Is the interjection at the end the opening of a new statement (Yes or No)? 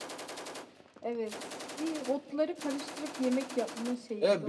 Yes